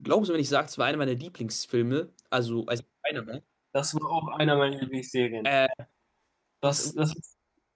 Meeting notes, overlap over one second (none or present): none